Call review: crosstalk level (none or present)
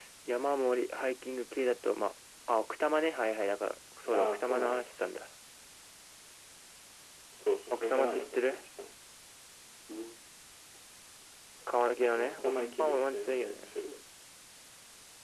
present